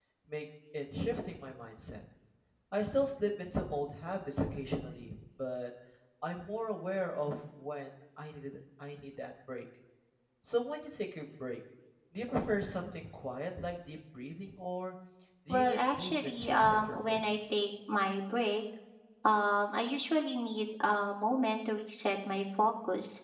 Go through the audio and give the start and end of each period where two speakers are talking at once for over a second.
15.5-17.4

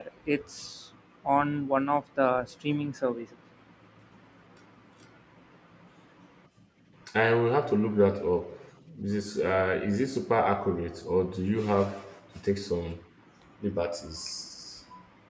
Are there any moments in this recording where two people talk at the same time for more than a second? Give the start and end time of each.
none

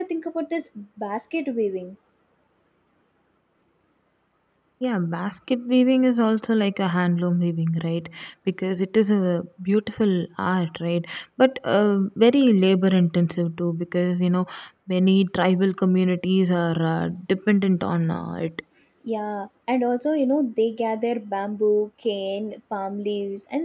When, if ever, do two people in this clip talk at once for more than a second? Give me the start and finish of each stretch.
none

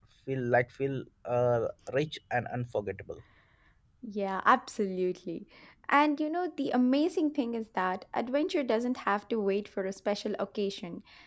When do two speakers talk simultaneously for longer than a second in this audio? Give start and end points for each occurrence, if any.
none

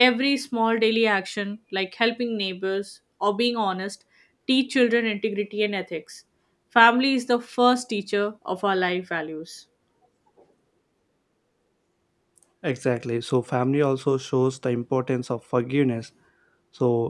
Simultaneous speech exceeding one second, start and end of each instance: none

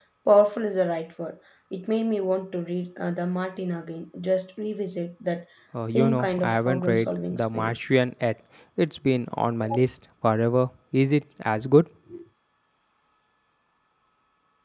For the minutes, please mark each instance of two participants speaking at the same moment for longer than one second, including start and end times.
5.9-7.7

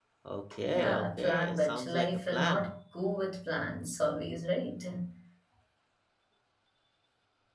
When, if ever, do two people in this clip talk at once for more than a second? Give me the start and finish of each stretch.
0.7-2.7

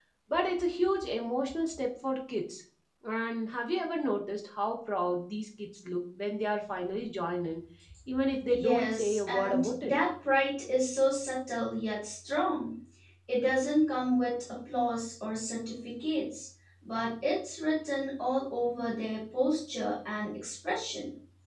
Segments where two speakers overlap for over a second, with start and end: 8.5-10.0

